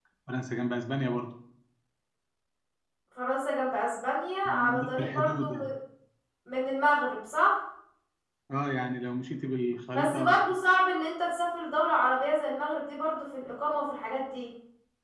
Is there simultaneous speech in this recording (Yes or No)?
Yes